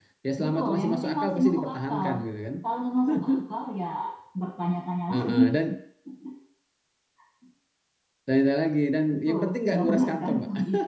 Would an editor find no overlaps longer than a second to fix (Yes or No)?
No